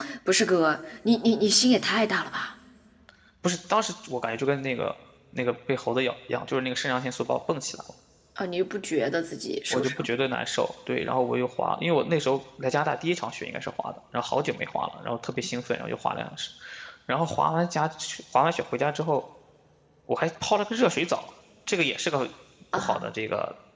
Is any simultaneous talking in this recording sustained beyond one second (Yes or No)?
No